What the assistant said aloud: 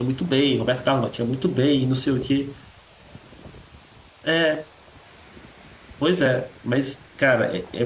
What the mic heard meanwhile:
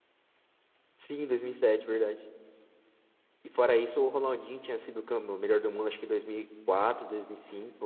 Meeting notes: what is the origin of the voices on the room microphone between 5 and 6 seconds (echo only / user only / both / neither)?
user only